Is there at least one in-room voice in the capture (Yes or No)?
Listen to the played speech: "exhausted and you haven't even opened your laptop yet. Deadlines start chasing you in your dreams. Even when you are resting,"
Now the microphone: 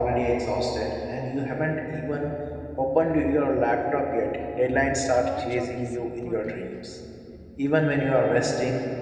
Yes